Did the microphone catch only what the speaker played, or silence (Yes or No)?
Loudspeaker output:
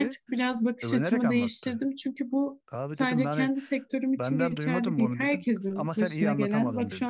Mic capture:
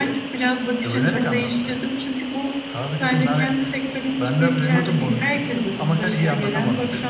Yes